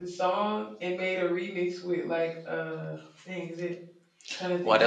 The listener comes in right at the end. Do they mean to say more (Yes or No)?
Yes